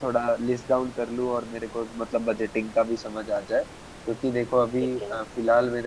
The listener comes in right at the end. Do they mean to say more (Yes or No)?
No